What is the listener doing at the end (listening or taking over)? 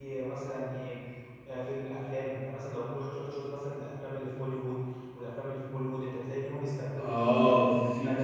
taking over